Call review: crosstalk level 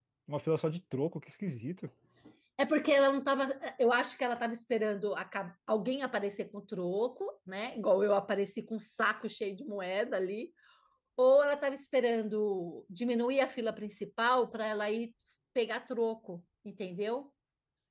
none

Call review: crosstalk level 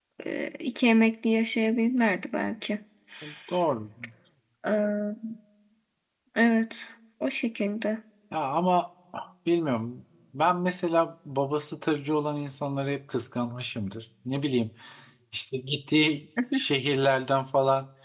none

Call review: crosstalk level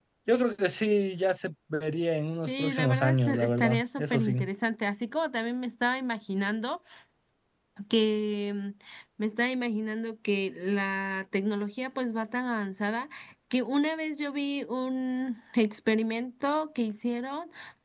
present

